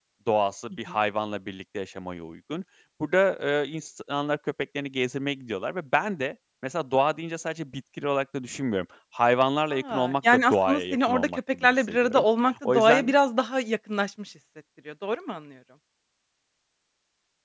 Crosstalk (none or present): present